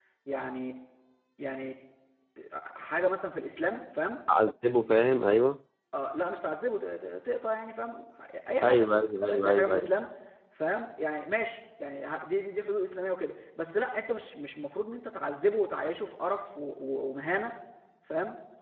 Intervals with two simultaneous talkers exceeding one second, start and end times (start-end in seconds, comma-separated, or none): 8.6-9.9